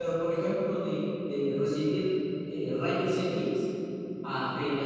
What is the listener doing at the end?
listening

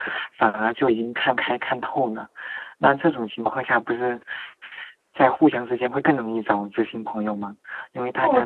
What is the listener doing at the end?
taking over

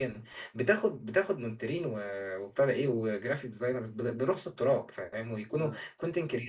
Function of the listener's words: listening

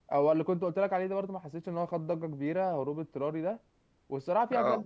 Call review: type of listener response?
listening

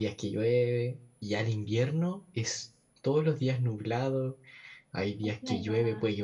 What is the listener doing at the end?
listening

